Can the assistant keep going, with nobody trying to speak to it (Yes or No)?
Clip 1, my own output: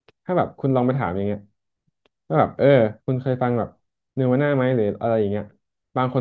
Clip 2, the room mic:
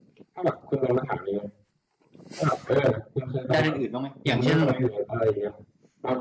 No